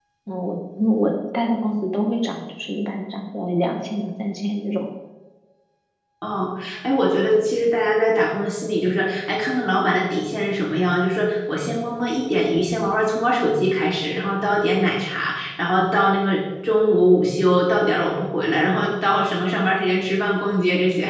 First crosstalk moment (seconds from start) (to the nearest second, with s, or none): none